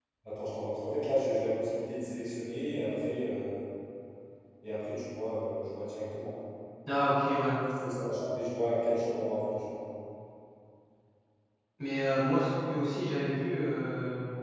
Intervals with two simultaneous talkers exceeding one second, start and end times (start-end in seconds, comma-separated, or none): none